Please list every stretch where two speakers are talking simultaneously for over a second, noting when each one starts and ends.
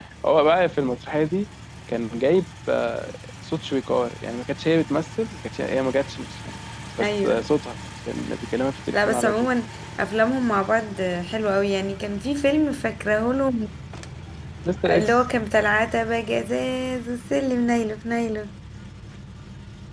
none

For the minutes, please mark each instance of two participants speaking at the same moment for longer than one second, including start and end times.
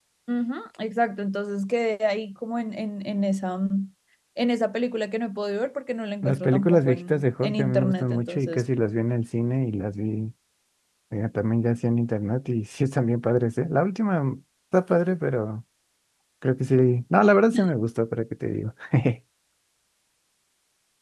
6.2-8.6

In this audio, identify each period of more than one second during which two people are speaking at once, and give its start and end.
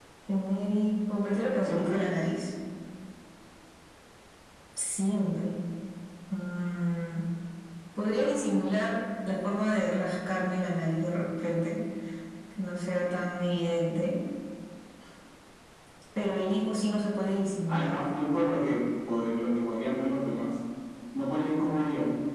none

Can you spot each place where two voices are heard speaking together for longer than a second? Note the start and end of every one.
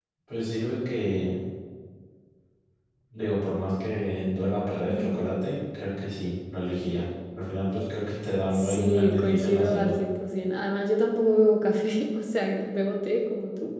8.5-9.9

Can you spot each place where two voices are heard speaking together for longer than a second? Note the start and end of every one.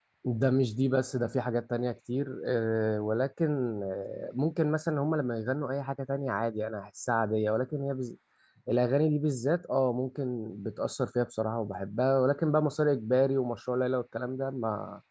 none

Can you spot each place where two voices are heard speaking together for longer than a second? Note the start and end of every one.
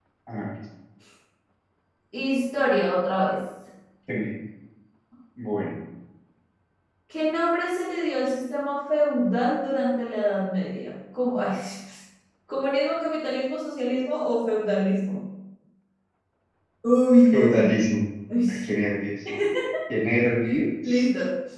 none

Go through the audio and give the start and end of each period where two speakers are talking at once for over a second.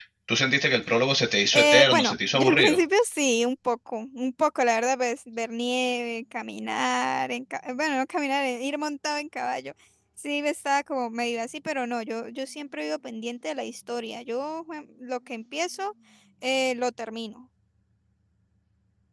1.5-2.8

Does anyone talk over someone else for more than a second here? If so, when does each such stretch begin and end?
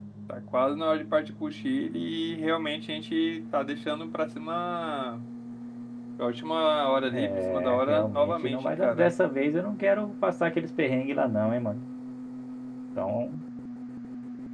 7.0-9.1

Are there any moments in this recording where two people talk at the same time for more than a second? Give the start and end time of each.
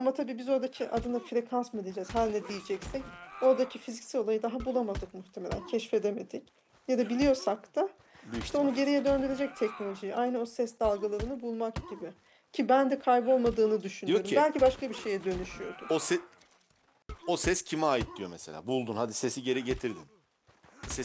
none

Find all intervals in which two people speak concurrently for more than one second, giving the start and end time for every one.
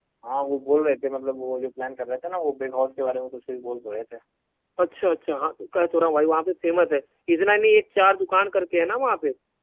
none

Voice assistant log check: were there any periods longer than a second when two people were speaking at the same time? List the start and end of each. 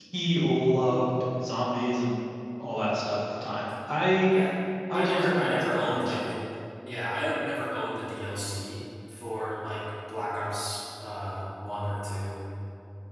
4.9-6.2

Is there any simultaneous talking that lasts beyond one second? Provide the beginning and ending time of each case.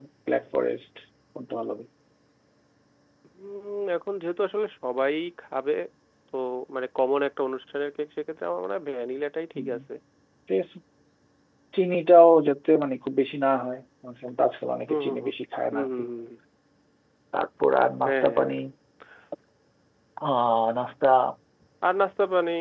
none

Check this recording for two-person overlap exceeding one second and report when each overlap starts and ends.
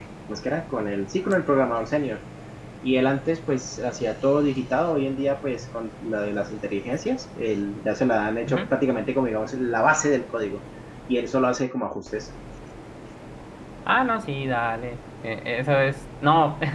none

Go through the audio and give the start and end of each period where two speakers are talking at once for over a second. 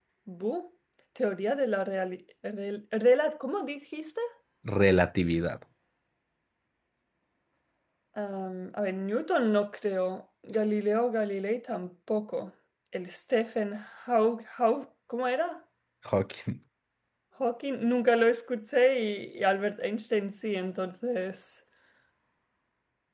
none

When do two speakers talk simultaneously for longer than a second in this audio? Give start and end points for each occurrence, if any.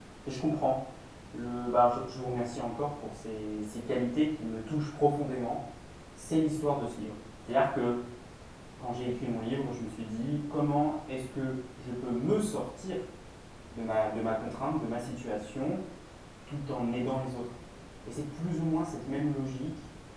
none

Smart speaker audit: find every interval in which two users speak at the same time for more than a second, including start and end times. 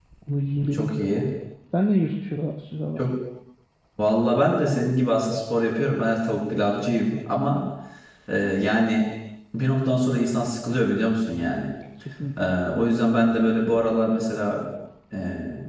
none

